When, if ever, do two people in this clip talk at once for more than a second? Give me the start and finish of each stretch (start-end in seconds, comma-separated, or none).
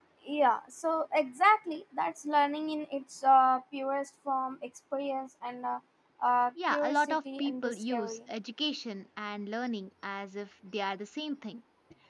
6.7-8.2